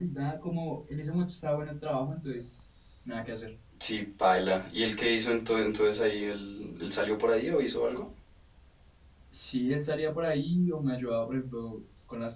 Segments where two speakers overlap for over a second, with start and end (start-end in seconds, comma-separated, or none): none